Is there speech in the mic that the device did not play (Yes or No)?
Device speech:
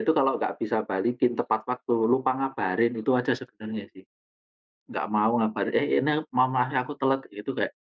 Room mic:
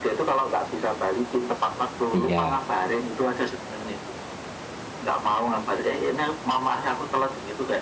Yes